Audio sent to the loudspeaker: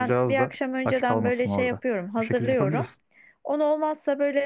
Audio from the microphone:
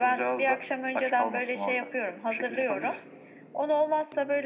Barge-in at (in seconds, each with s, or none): none